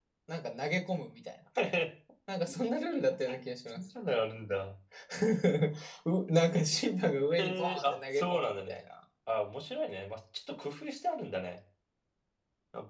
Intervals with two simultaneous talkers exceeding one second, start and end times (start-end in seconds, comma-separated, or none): 7.4-8.8